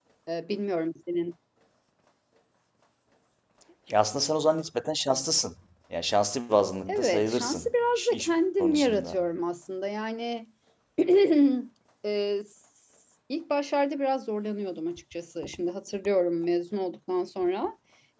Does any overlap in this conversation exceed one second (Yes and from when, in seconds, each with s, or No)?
Yes, from 6.9 s